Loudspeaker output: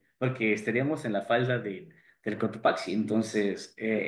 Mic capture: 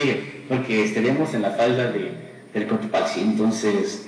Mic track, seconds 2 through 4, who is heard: echo only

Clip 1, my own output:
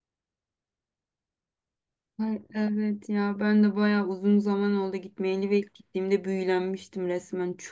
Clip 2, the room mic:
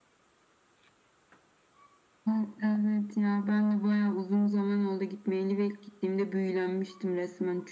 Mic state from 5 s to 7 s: echo only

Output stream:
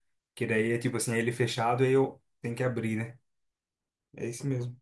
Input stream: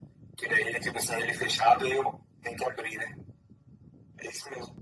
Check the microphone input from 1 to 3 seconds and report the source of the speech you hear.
echo only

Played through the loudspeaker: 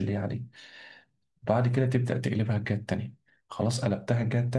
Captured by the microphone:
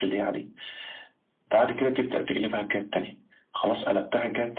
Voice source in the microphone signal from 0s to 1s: echo only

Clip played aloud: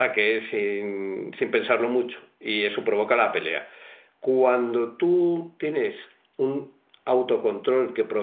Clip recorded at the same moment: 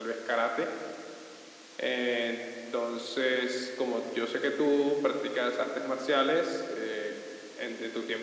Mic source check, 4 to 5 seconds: user only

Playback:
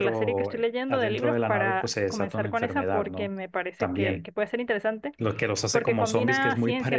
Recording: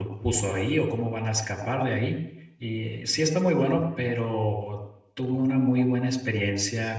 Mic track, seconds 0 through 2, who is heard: user only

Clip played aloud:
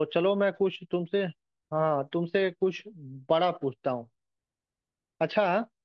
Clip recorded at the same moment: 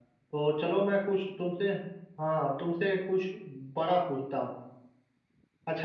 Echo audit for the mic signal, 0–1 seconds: echo only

